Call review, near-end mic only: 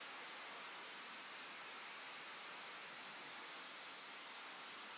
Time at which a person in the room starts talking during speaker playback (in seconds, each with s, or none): none